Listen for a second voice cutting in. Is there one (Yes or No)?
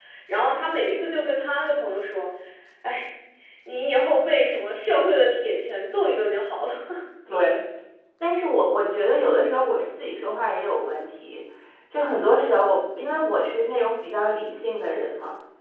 No